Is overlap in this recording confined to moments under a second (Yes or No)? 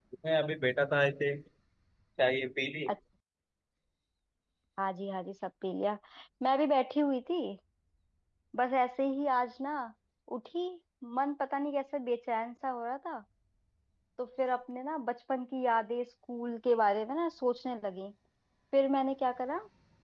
Yes